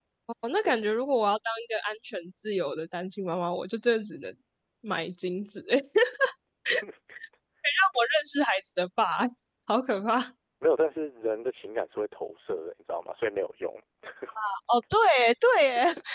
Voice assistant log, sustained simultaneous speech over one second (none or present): none